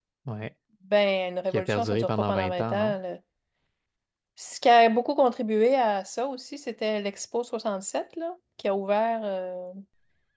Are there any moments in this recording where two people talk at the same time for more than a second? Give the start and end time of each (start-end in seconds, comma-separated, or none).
1.5-3.0